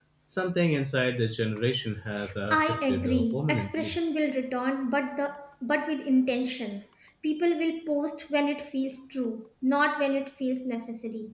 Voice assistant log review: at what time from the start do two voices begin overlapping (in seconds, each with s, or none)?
2.5 s